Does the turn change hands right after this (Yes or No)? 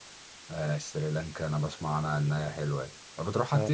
Yes